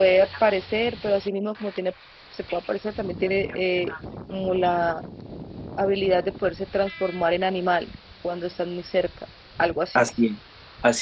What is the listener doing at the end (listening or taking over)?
taking over